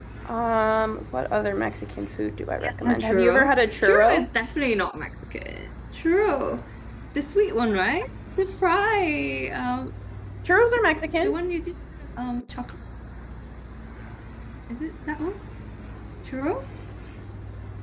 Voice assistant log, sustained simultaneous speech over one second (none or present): present